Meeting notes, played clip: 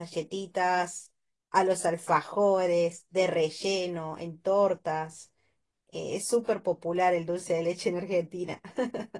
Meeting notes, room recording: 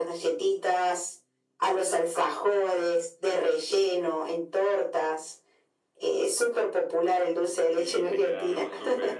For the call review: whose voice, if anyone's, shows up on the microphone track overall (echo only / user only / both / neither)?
both